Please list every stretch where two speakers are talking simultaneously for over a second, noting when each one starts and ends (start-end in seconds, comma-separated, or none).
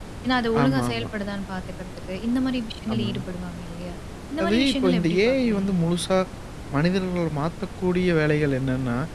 4.4-5.9